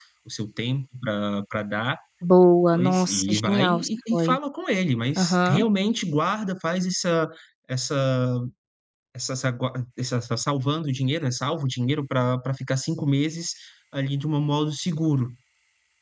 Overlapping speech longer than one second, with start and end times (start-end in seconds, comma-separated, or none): 2.7-4.4